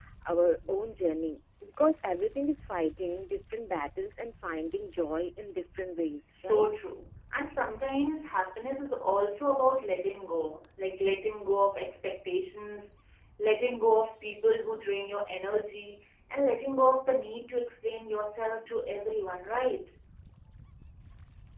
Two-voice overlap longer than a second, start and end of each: none

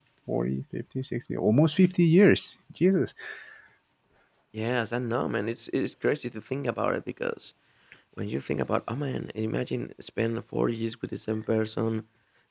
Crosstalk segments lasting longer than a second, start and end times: none

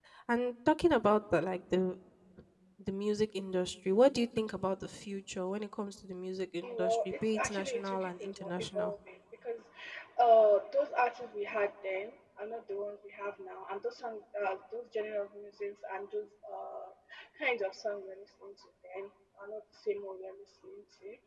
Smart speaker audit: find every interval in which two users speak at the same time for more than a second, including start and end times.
6.6-8.9

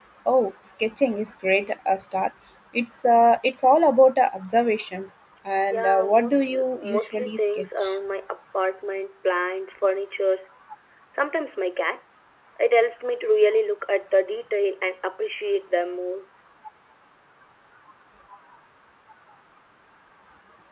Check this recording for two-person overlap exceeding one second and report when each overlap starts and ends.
5.7-8.0

